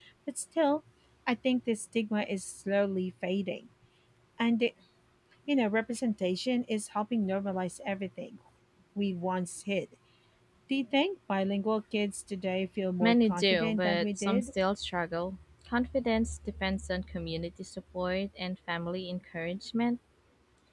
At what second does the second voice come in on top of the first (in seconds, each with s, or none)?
13.0 s